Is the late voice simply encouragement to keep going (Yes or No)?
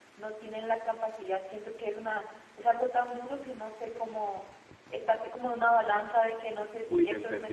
No